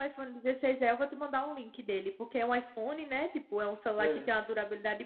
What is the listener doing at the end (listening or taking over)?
listening